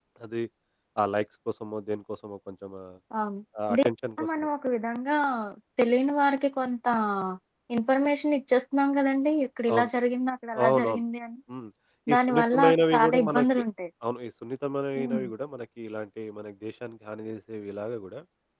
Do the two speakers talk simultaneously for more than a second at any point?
Yes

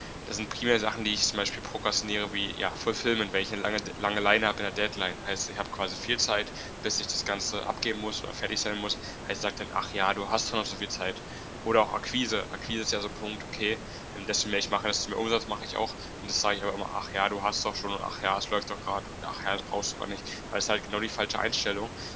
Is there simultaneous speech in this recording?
No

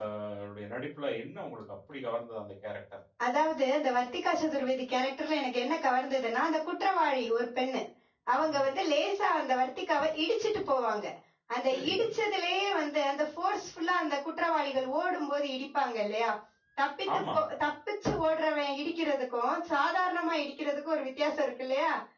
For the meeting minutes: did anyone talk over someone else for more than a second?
No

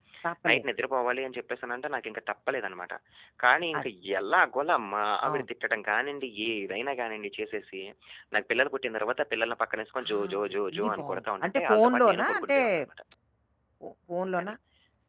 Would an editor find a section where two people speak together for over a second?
Yes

